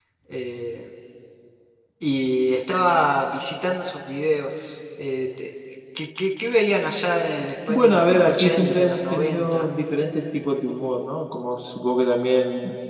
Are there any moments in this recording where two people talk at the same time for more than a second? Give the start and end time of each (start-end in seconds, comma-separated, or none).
7.7-9.7